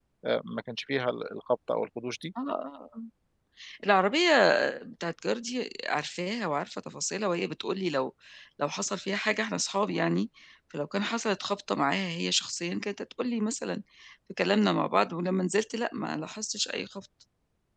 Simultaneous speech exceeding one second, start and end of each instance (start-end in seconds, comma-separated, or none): none